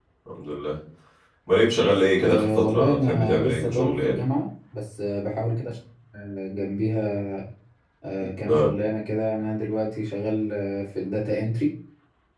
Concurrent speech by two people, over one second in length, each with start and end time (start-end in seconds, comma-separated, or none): 2.2-4.2